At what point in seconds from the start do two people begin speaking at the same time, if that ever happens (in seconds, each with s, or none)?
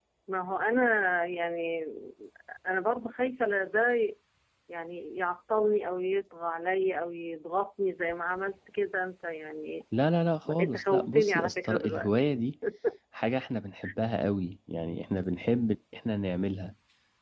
10.6 s